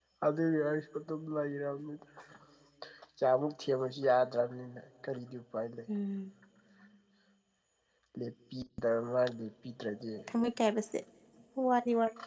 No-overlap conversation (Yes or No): Yes